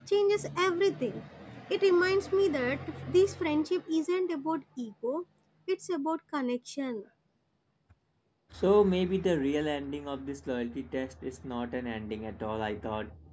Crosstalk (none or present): none